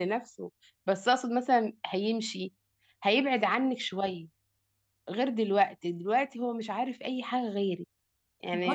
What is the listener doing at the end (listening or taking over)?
taking over